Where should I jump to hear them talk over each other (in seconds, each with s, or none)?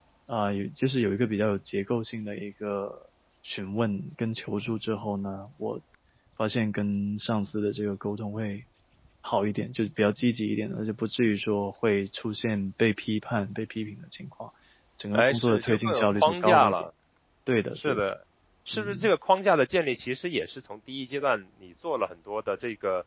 15.1 s